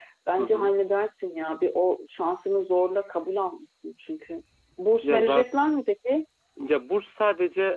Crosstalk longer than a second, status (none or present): none